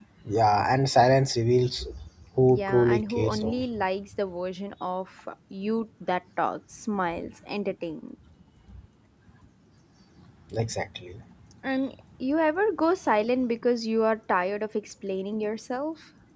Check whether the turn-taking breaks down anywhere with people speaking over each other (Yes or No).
Yes